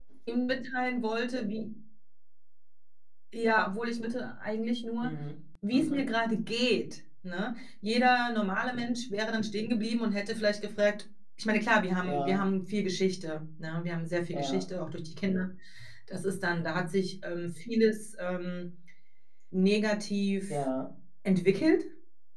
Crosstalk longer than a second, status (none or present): none